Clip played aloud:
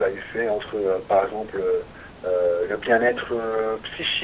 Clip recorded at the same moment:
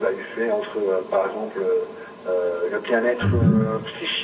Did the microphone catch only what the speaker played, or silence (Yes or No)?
No